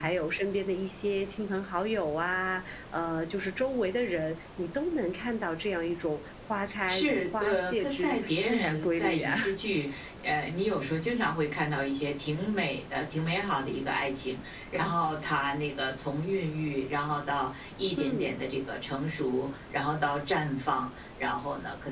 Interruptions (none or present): present